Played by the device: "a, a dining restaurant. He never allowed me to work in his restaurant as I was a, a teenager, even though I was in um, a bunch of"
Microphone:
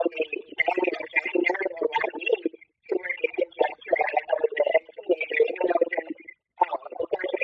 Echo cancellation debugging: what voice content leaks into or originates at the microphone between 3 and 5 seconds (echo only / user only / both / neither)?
echo only